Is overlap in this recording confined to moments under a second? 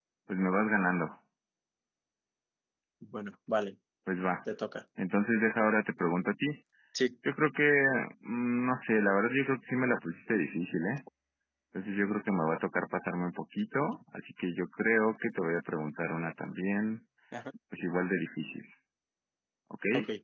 Yes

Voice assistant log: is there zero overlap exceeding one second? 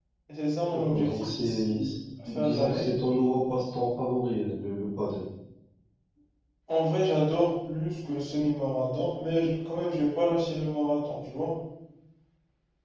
No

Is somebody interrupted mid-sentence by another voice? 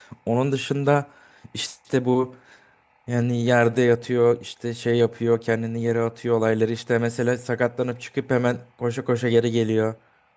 No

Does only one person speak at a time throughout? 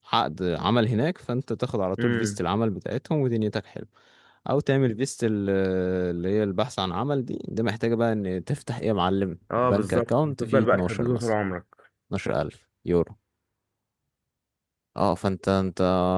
No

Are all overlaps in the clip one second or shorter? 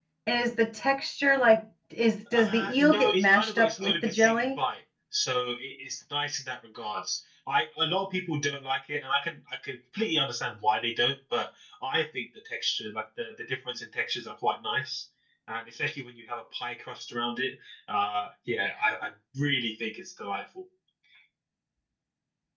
No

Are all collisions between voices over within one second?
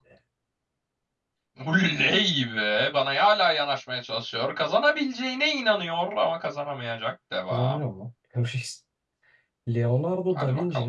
Yes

